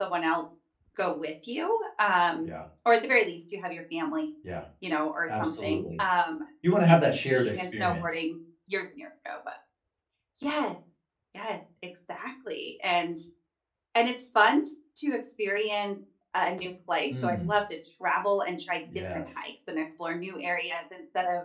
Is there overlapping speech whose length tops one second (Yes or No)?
Yes